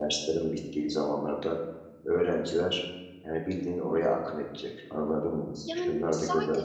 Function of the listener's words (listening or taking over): taking over